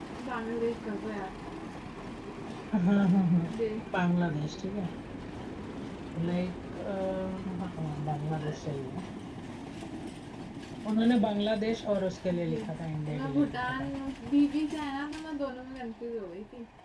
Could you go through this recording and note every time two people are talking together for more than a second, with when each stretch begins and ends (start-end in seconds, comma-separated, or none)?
12.3-13.9